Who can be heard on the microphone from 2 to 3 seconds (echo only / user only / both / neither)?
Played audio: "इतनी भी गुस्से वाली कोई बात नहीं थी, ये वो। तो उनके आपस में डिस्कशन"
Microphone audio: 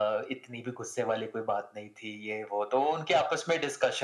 echo only